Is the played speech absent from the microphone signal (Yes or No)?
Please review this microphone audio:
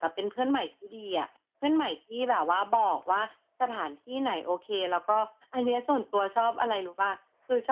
No